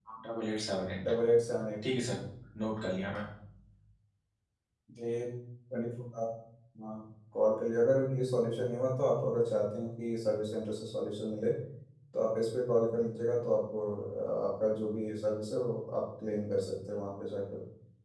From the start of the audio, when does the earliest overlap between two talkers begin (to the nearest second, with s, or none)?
none